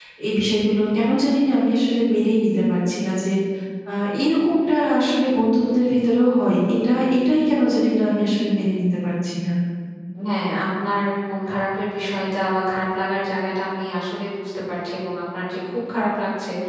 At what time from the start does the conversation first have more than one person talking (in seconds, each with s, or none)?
none